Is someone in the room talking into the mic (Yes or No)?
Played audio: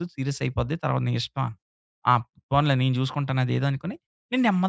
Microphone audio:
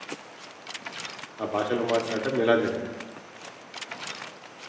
Yes